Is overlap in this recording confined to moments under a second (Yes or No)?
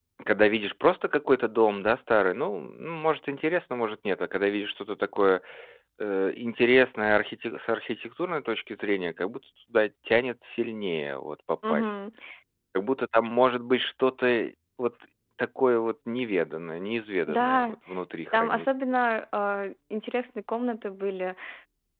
Yes